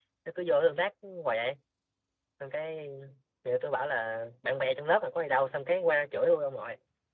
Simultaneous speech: No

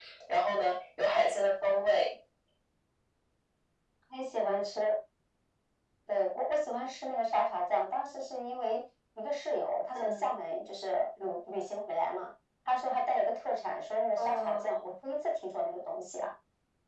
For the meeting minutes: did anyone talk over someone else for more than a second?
No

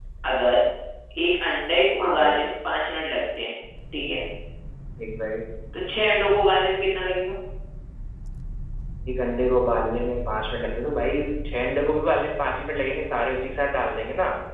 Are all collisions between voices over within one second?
Yes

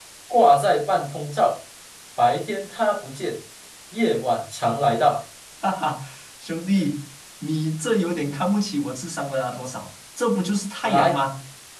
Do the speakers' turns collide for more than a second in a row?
No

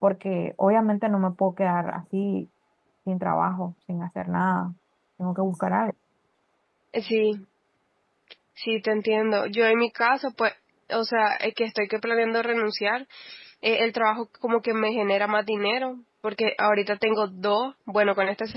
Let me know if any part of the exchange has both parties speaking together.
No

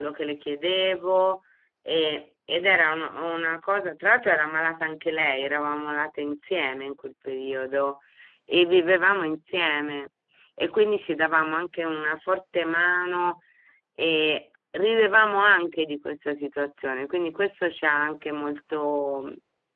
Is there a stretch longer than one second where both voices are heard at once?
No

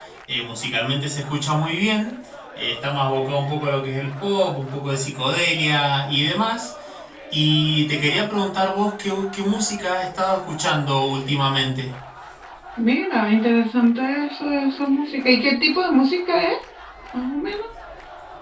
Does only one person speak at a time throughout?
Yes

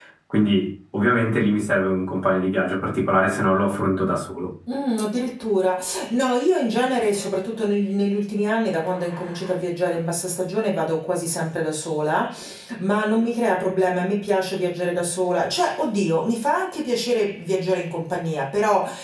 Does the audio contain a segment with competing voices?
No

